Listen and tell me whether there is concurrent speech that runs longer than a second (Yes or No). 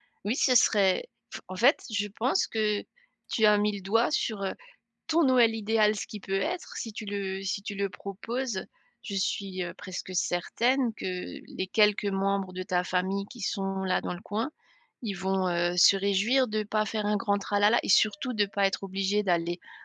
No